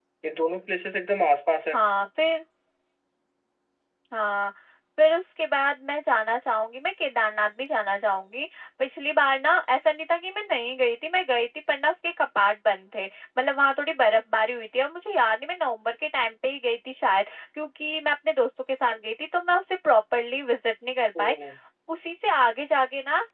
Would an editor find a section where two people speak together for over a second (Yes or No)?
No